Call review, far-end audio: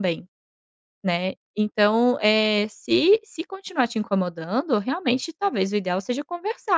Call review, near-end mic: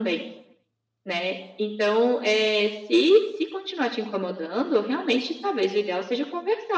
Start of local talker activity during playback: none

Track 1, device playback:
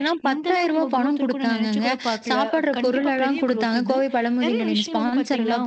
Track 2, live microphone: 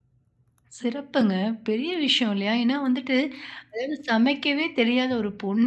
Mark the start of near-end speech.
0.8 s

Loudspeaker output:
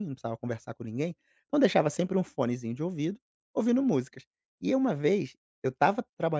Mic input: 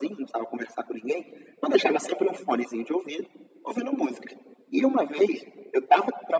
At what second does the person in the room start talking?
none

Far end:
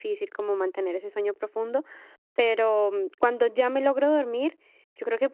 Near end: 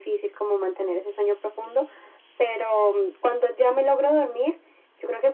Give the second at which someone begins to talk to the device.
none

